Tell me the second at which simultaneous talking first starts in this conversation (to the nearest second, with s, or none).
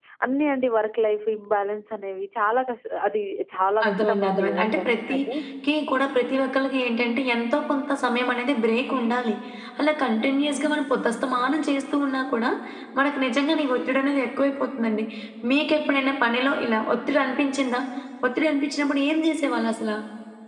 4 s